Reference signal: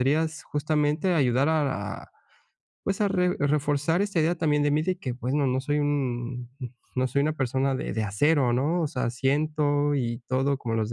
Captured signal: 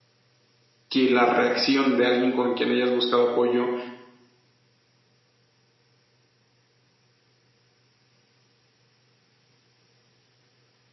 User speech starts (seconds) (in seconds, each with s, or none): 0.9 s